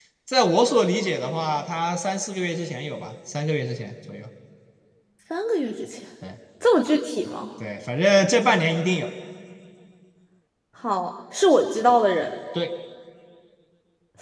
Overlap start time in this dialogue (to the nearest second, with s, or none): none